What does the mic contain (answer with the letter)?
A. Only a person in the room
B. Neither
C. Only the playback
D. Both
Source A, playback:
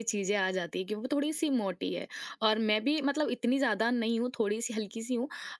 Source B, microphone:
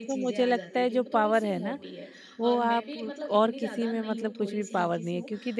D